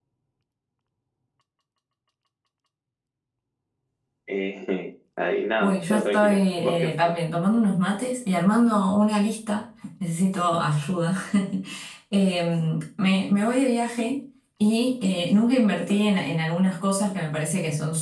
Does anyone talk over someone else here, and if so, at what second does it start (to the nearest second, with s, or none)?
6 s